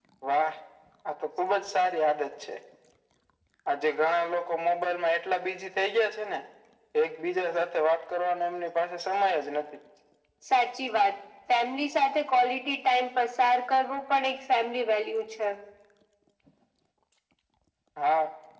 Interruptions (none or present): none